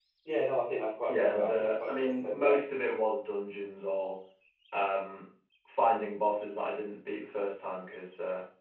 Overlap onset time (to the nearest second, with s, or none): 1 s